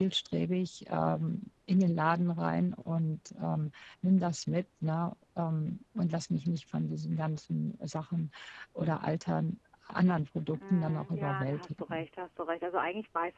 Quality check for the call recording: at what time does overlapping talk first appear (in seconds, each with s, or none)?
10.5 s